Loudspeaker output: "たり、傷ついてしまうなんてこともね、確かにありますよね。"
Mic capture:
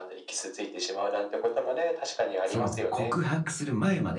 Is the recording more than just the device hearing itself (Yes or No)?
Yes